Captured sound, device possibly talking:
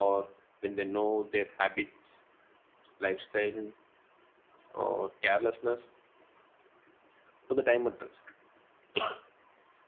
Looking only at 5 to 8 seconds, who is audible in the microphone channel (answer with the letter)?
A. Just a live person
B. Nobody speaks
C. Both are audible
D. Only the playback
D